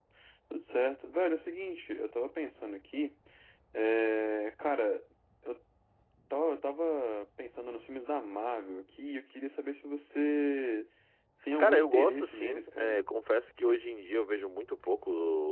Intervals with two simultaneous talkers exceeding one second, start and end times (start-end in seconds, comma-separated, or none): 11.6-13.0